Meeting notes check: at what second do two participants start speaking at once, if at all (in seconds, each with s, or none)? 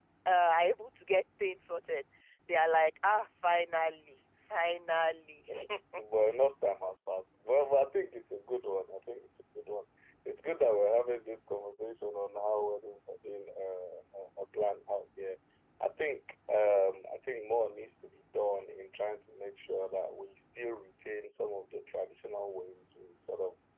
none